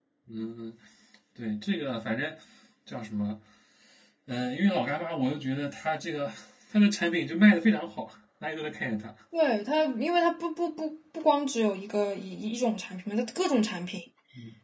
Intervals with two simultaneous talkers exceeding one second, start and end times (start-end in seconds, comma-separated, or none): none